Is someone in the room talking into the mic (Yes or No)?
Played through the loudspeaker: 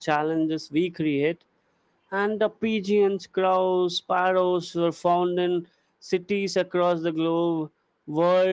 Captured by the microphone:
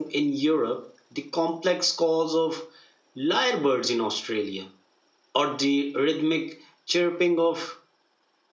Yes